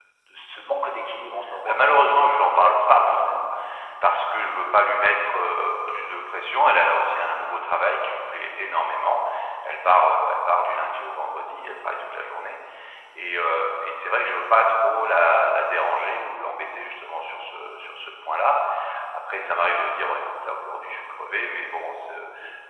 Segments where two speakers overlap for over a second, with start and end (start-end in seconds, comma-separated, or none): 1.6-3.4